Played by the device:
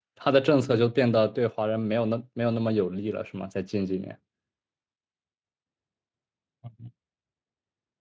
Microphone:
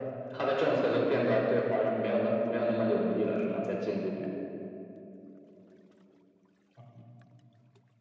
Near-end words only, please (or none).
none